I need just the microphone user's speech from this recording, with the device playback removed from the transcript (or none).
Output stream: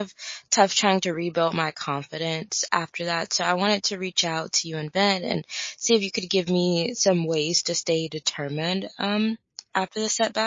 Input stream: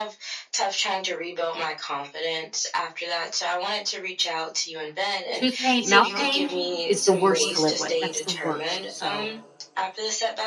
Tooth pain mouth pain is the worst to live with, that's the worst, so,